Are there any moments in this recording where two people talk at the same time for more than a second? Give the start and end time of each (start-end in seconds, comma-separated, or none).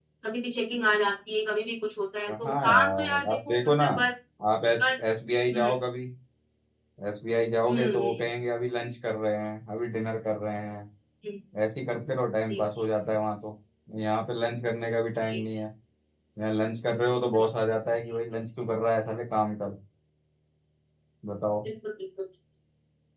2.4-3.8